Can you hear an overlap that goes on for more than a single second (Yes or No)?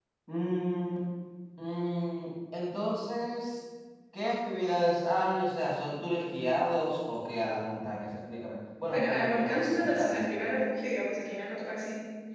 Yes